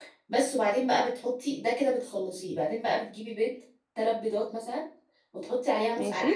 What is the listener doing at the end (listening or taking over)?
listening